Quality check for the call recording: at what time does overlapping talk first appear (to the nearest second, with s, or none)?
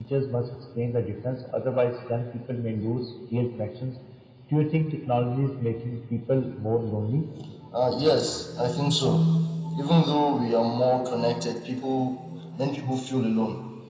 none